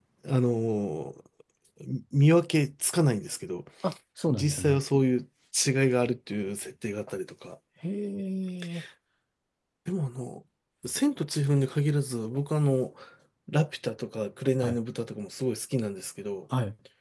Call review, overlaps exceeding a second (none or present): none